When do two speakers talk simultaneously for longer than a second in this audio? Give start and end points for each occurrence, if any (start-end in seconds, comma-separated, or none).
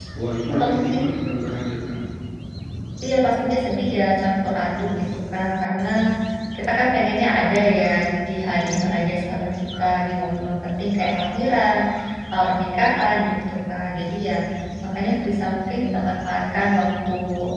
none